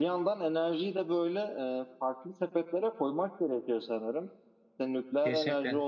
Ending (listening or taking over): listening